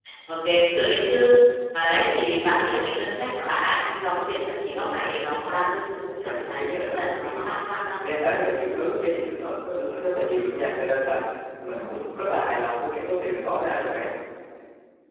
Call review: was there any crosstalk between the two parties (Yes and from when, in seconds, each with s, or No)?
Yes, from 6.2 s